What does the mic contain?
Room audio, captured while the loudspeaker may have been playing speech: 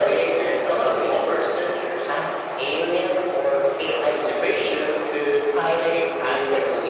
echo only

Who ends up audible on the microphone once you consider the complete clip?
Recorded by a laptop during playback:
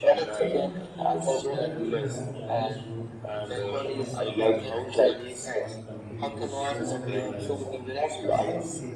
both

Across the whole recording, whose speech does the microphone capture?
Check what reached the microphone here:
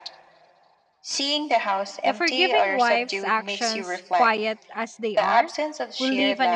both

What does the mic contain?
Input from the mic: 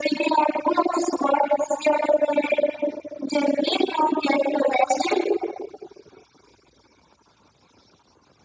echo only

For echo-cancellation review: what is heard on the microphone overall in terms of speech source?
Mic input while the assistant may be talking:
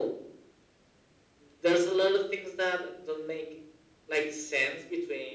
echo only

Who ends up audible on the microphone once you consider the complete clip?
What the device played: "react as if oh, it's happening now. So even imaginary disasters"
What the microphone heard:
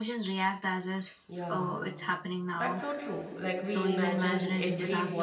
both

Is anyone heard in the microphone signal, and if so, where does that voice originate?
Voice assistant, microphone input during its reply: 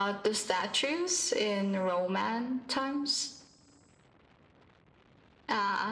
echo only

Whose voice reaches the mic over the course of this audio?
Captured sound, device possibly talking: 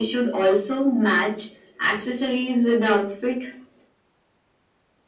echo only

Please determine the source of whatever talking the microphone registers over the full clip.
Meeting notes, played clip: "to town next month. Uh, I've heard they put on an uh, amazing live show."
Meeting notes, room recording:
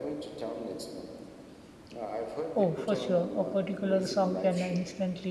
both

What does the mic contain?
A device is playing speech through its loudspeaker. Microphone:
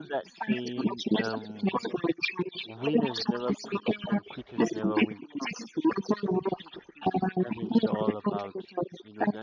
both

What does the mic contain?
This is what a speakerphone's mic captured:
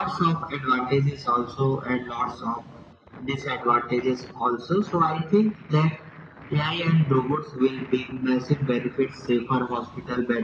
echo only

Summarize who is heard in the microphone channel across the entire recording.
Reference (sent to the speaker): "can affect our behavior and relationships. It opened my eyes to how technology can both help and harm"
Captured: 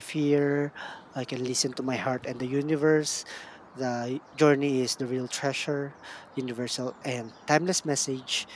user only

